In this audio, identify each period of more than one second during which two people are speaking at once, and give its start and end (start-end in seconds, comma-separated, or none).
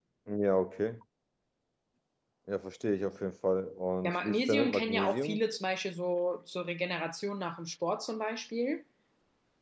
4.0-5.4